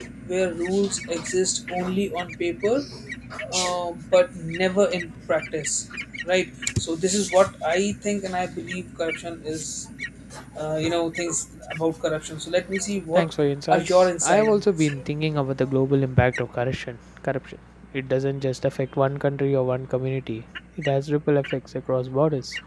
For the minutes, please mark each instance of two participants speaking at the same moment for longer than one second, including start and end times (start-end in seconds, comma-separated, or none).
13.7-14.9